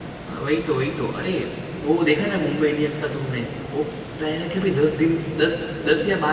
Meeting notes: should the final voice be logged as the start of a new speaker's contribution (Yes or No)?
No